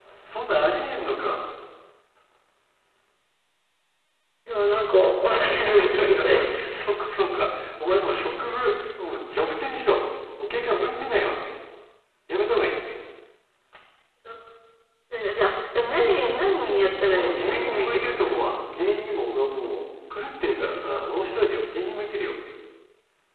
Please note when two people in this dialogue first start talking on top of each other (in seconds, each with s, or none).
5.3 s